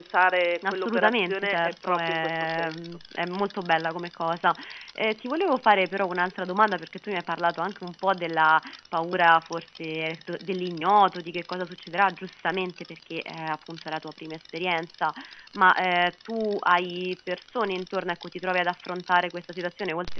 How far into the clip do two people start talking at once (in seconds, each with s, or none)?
0.7 s